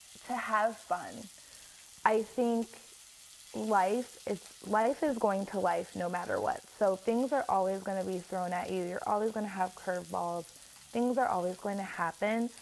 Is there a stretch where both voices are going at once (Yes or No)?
No